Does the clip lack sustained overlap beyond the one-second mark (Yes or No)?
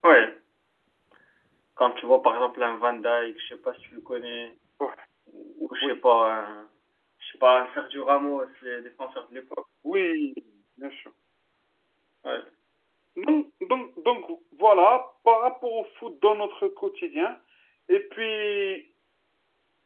Yes